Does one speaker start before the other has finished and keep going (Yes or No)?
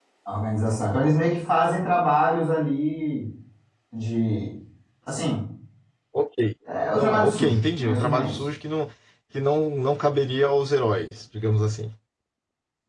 Yes